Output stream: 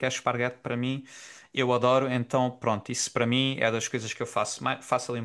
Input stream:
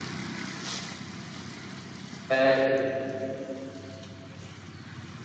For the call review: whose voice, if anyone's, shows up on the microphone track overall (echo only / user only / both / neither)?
user only